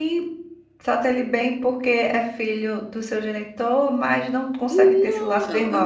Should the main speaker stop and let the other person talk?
Yes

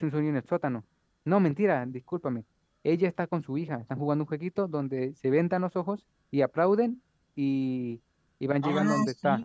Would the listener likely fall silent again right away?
No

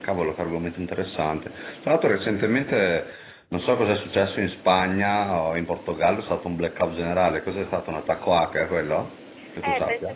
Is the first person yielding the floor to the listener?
Yes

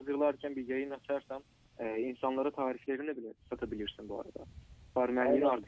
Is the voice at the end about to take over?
Yes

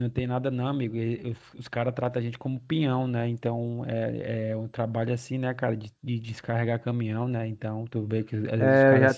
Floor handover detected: Yes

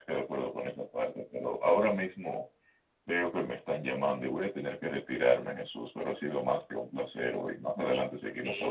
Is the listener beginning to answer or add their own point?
Yes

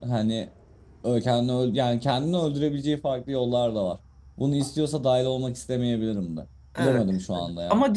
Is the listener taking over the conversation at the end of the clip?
Yes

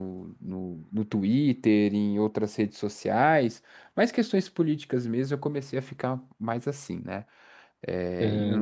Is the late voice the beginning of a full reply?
Yes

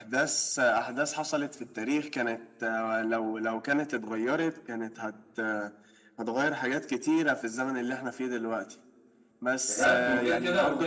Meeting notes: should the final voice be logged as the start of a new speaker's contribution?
Yes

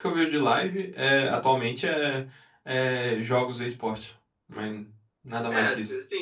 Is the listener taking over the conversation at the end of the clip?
Yes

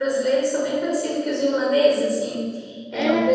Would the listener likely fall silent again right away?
Yes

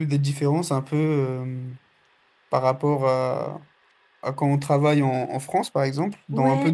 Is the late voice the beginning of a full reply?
Yes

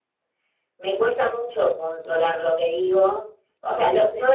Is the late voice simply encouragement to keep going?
Yes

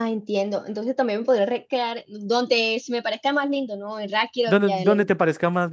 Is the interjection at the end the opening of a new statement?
Yes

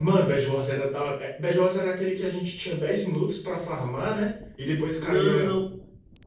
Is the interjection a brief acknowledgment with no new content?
No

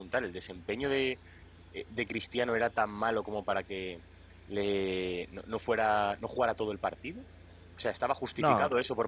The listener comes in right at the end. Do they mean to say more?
No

